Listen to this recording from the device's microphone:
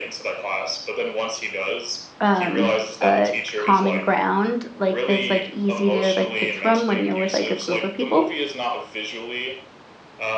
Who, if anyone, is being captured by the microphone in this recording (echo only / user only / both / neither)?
both